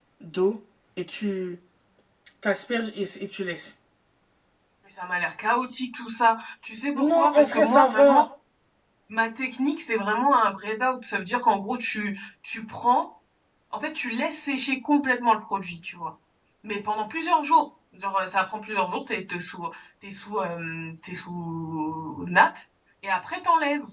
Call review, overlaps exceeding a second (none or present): present